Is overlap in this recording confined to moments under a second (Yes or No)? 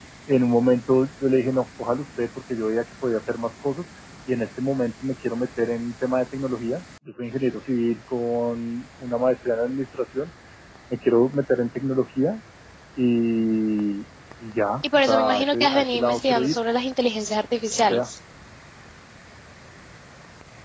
No